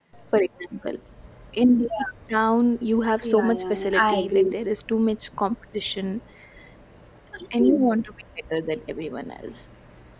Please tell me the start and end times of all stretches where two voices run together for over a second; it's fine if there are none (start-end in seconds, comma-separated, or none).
3.2-4.5